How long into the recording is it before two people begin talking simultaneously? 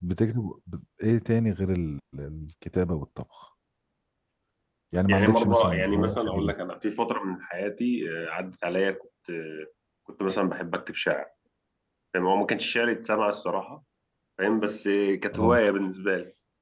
5.1 s

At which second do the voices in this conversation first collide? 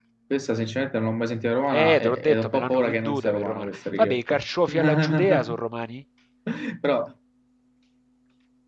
1.7 s

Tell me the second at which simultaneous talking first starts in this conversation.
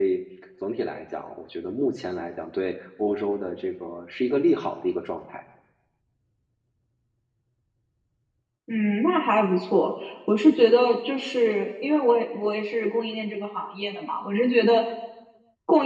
none

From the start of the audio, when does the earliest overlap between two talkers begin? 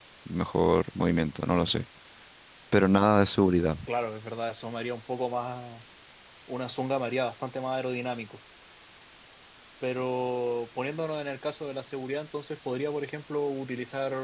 none

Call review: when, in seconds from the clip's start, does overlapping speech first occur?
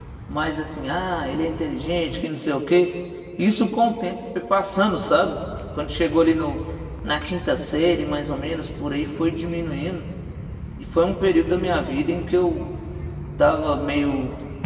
none

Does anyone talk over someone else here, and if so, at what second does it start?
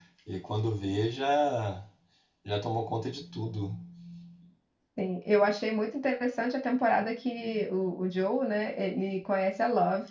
none

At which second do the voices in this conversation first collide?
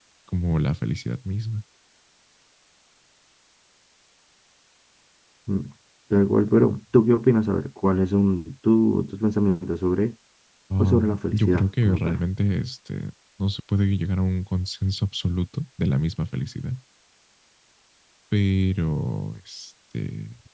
10.8 s

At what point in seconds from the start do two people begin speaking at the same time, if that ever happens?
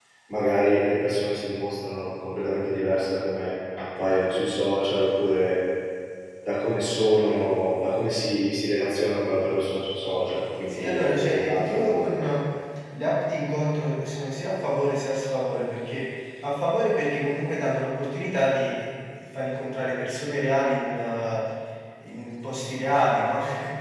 10.7 s

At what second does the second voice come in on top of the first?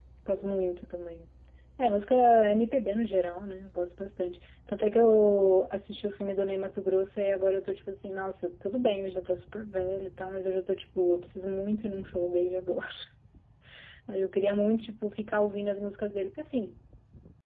none

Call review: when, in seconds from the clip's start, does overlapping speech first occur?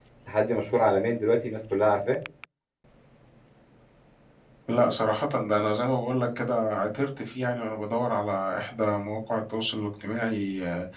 none

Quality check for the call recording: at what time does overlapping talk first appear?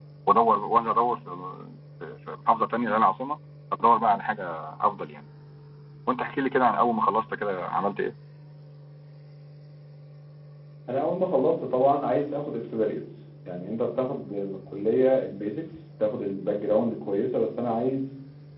none

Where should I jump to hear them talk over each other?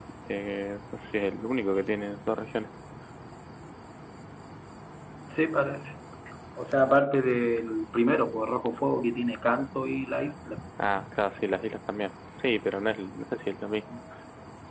none

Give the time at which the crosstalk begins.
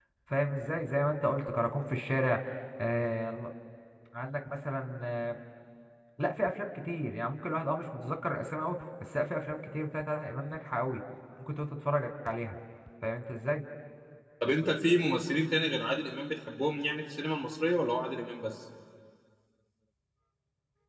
none

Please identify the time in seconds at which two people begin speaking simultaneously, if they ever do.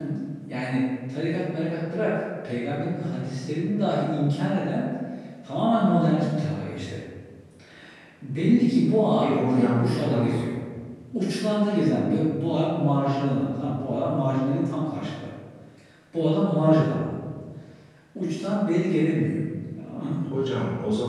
9.2 s

